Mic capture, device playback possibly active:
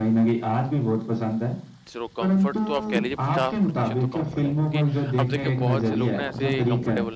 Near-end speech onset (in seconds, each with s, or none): 1.9 s